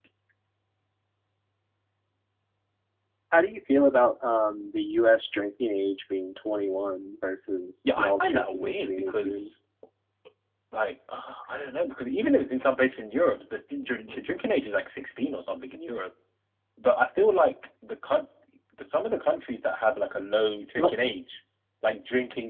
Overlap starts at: 8 s

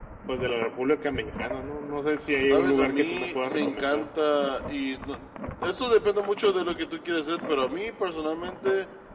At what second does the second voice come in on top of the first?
3 s

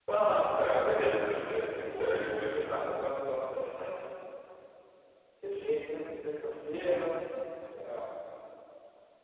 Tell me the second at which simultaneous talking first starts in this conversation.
1 s

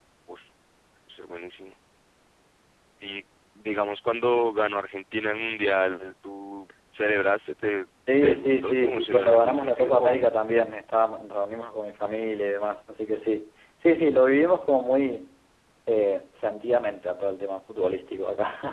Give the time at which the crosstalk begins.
8 s

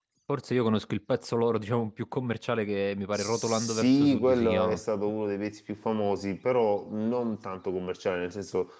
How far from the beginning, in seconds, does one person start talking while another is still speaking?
3 s

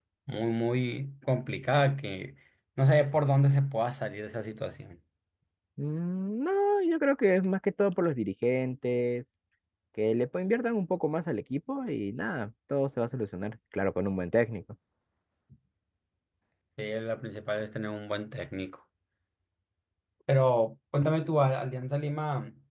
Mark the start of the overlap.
none

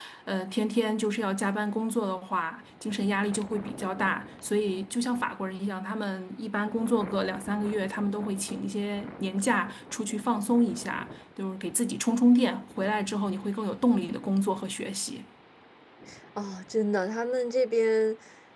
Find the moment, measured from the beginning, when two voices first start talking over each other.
none

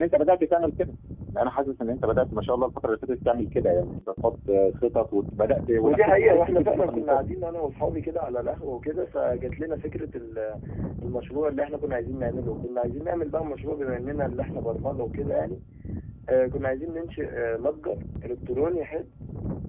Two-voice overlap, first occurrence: 6 s

